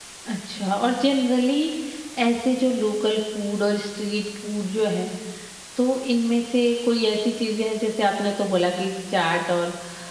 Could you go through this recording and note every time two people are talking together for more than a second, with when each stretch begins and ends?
none

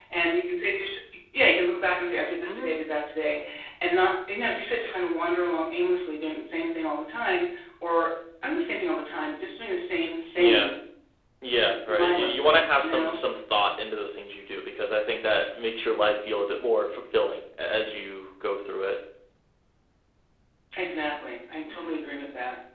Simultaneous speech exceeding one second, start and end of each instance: 11.9-13.1

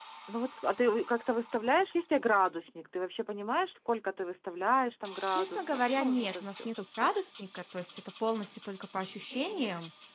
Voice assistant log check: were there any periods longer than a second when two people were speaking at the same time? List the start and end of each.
5.3-6.7

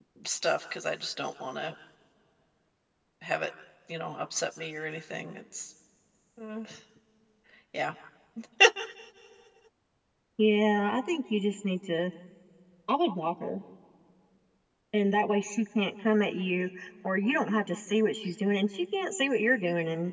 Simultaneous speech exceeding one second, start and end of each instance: none

